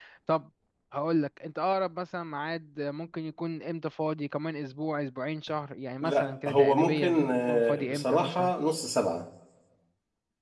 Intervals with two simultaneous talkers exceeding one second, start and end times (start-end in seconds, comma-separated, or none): 6.0-8.5